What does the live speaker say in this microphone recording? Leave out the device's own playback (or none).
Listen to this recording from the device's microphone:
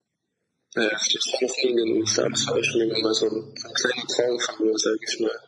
Mhm.